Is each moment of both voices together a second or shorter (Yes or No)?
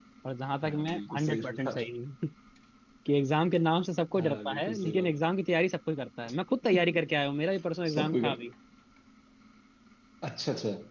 No